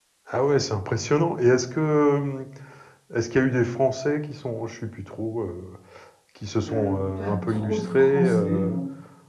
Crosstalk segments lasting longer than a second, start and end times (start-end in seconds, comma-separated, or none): 6.6-8.8